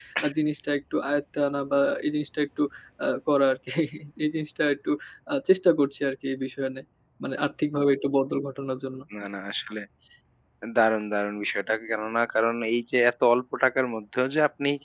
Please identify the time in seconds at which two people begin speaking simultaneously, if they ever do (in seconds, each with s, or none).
none